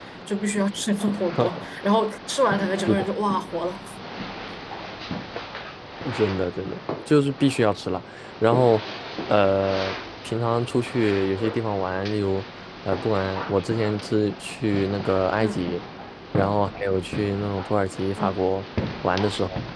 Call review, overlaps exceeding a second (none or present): none